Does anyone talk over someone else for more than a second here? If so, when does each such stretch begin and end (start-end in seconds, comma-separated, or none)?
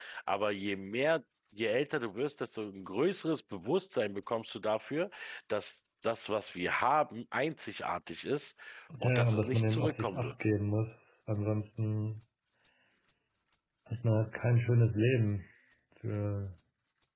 9.0-10.3